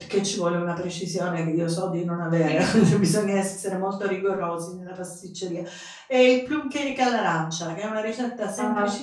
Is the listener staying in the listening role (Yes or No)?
Yes